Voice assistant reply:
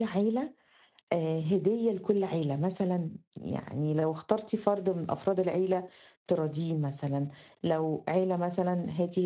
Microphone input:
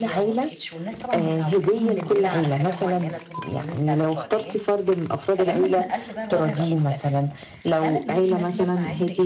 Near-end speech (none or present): present